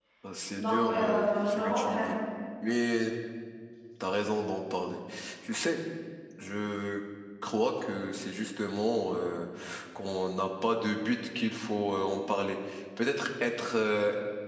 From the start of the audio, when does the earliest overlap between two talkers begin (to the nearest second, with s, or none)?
1 s